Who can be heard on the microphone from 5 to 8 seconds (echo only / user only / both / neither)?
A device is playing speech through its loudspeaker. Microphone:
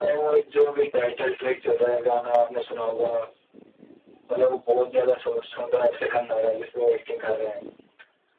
echo only